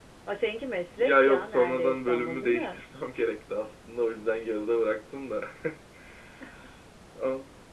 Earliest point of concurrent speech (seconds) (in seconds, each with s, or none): 1.0 s